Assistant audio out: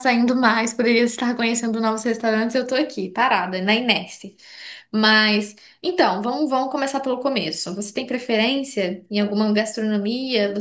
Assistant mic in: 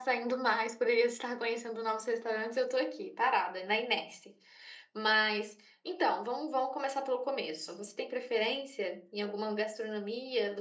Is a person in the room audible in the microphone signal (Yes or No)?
No